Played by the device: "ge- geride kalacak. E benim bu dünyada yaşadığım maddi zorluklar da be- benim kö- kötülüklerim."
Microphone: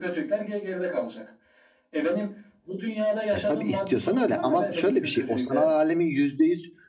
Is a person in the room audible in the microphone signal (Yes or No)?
Yes